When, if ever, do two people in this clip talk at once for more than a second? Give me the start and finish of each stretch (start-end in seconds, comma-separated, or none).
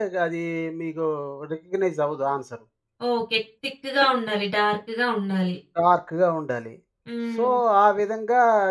none